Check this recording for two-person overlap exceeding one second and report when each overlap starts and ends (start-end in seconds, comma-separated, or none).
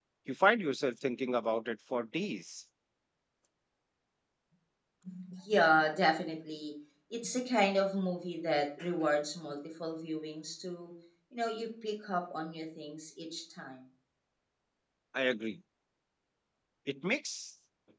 none